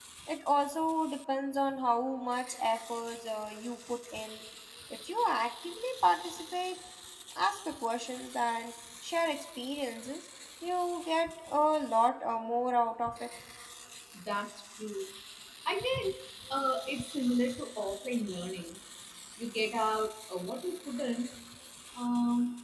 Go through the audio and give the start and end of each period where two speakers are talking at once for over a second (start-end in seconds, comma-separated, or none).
none